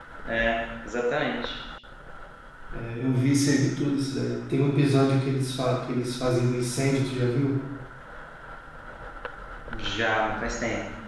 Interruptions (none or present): none